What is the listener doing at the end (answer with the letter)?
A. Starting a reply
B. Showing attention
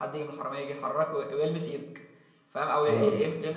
B